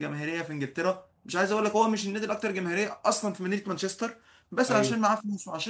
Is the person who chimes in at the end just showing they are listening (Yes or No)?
Yes